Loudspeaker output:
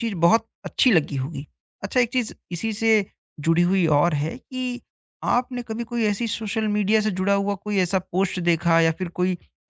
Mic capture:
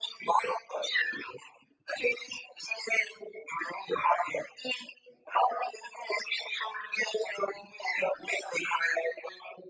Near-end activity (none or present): none